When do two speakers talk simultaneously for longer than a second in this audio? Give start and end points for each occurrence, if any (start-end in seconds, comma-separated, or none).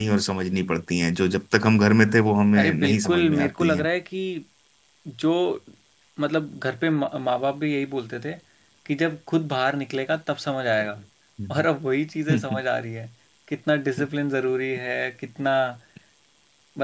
2.6-3.9